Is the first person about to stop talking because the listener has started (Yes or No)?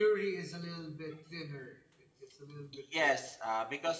Yes